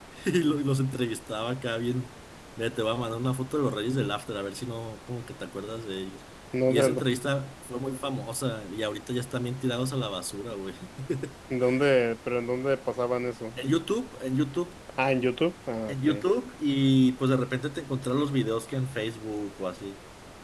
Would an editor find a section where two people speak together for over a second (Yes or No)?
No